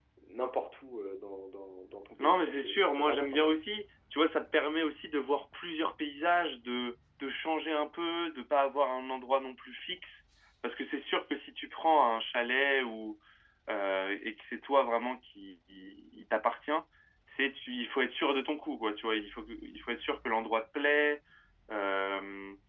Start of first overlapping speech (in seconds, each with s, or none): 2.2 s